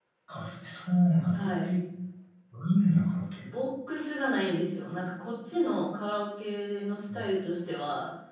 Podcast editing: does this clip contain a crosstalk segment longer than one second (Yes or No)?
No